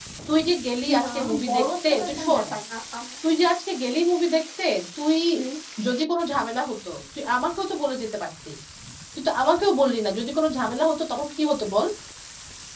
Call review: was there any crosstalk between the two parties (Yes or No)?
Yes